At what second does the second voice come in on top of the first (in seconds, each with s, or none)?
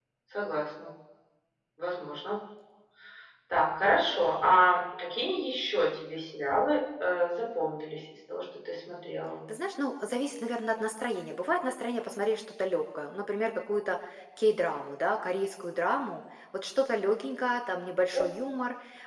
none